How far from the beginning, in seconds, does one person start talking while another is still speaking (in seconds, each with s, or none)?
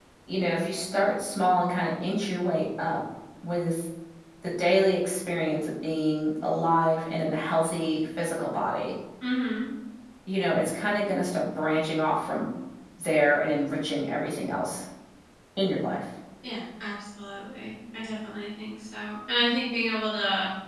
none